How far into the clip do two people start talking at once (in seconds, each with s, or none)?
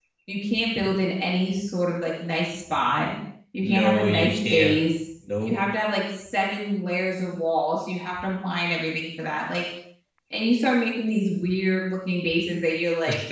3.6 s